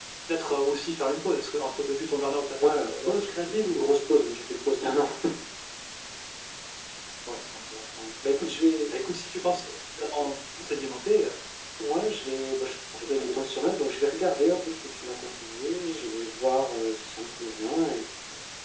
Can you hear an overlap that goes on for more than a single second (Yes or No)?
Yes